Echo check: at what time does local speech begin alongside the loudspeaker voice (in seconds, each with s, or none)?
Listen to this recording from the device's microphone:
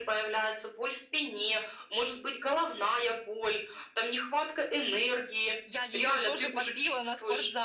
5.6 s